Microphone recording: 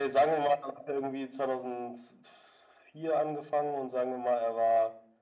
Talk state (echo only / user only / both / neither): echo only